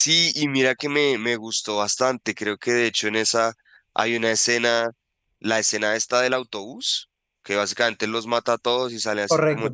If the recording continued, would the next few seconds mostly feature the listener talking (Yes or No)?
No